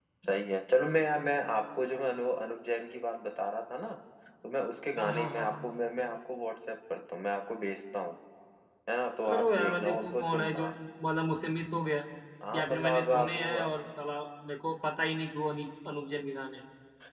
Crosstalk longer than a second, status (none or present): present